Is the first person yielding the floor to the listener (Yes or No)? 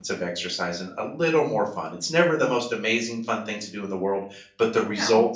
No